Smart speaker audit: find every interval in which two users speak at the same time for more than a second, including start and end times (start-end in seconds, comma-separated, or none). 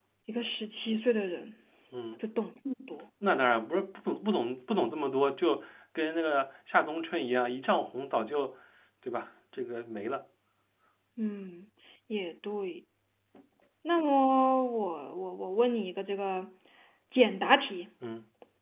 none